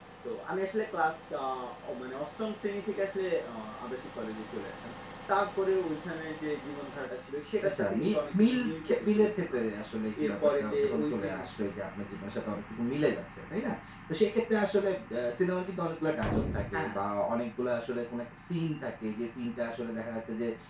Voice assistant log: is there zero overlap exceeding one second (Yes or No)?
No